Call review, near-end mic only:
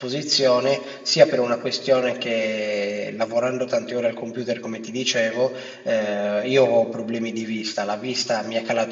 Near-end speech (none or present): present